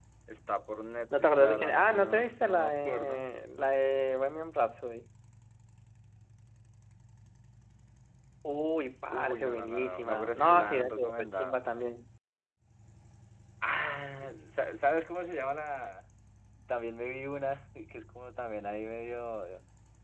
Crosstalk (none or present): present